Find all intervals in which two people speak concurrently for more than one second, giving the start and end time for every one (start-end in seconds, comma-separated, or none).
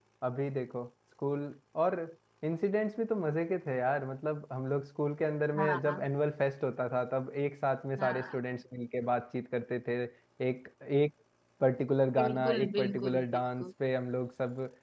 12.2-13.7